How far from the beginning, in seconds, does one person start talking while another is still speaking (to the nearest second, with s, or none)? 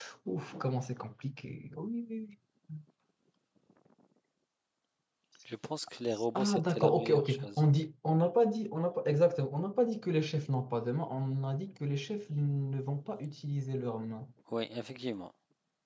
6 s